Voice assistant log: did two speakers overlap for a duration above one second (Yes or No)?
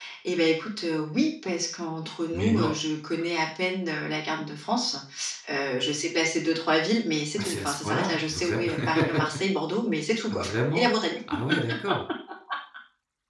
Yes